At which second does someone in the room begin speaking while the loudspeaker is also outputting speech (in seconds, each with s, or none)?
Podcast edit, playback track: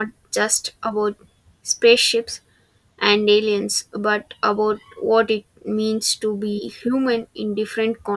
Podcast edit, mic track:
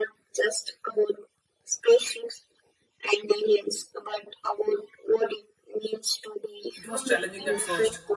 6.7 s